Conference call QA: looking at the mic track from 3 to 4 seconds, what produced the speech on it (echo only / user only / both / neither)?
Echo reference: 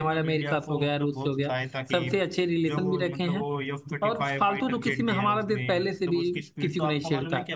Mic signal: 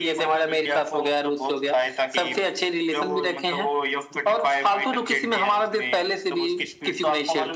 echo only